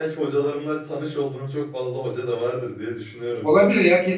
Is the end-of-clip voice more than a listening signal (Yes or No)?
Yes